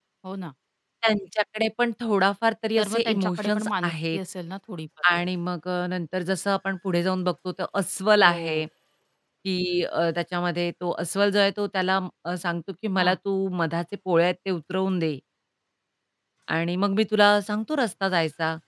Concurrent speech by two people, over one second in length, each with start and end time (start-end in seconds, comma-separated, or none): 2.8-4.2